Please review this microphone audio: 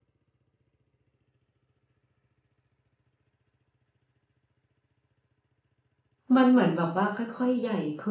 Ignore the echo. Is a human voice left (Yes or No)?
Yes